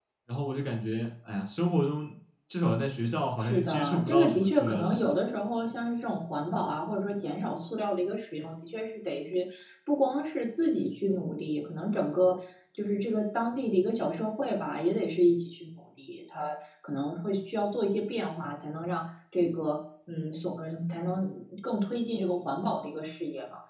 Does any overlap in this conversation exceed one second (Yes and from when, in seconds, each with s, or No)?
Yes, from 3.4 s